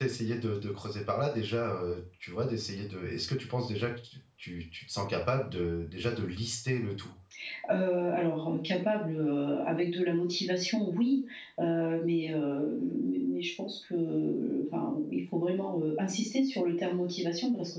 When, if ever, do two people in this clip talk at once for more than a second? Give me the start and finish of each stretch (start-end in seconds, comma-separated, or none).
none